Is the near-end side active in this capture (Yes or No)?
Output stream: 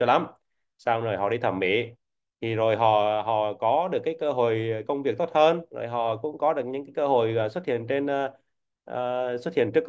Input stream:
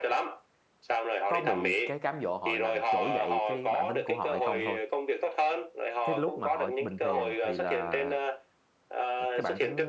Yes